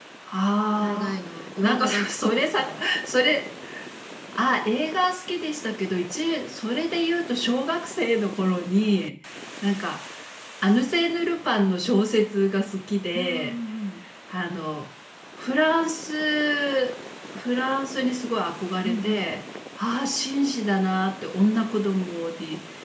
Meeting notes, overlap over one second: present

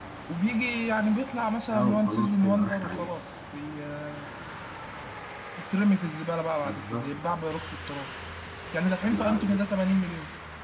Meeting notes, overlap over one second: present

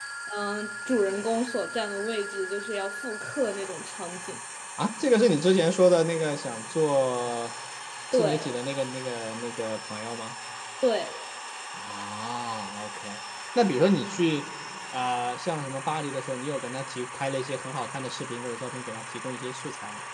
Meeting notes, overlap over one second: none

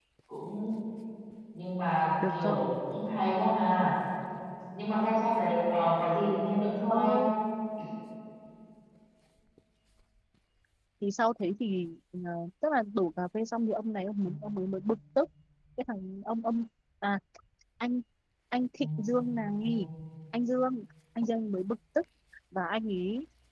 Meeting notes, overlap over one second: none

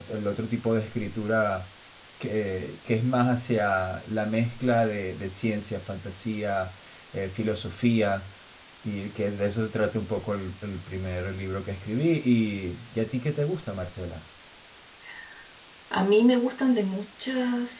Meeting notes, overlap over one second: none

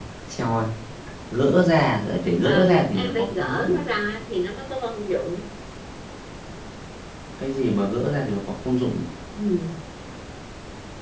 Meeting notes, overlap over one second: present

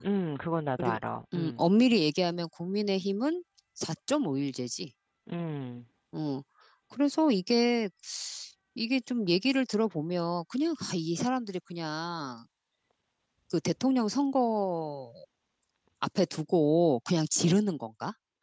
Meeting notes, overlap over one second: none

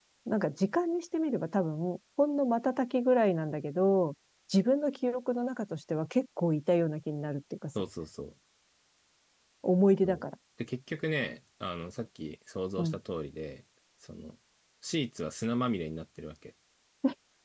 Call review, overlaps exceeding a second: none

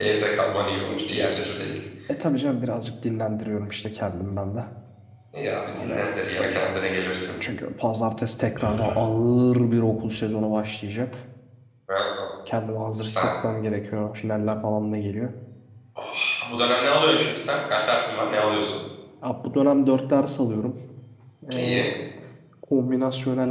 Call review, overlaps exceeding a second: none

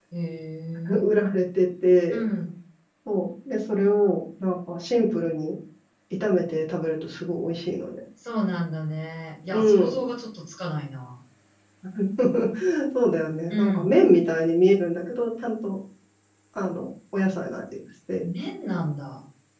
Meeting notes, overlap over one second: none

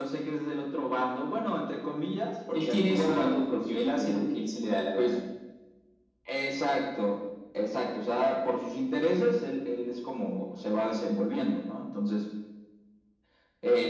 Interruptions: present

